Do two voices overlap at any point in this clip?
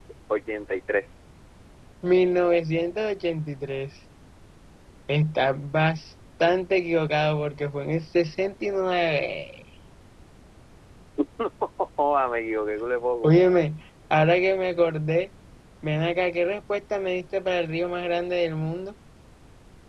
No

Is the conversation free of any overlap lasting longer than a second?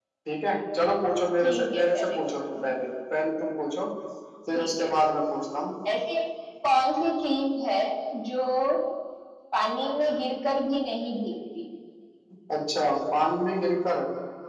No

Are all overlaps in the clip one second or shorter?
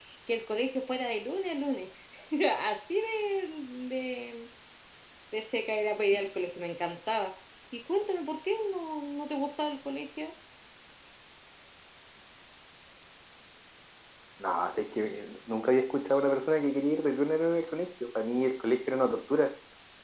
Yes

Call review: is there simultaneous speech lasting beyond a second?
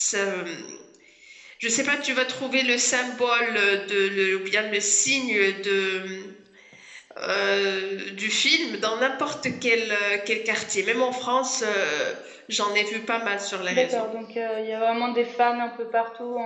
No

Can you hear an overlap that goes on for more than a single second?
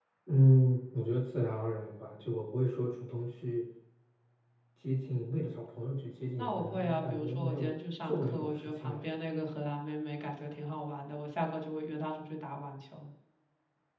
Yes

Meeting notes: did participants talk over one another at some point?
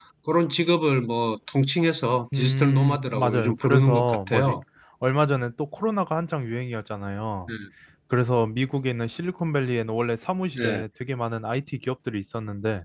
Yes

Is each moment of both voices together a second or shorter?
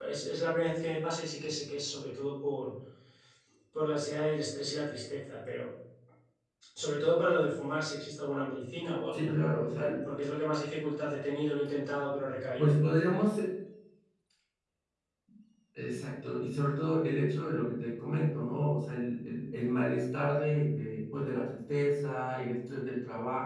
Yes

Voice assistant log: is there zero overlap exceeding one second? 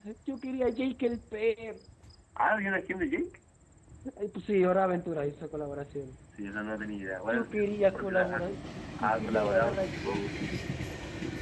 No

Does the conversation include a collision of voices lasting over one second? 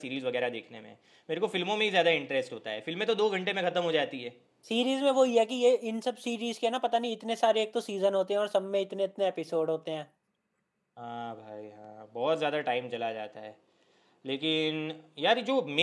No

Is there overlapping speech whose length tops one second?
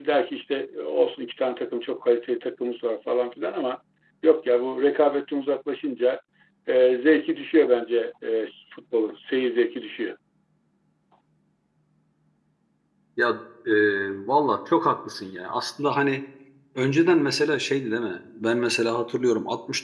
No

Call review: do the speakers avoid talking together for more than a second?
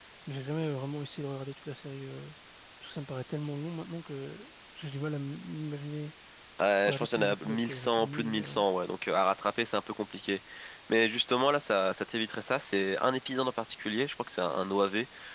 No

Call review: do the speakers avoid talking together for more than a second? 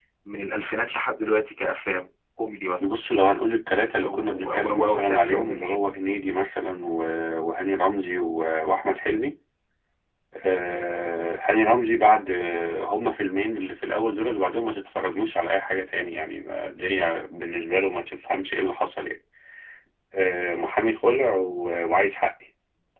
No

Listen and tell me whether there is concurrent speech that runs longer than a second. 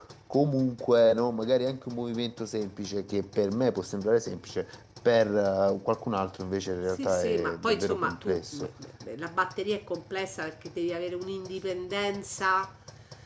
Yes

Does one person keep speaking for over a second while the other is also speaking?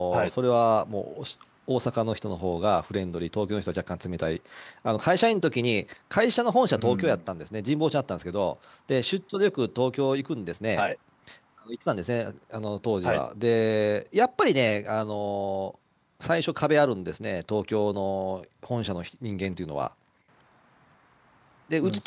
No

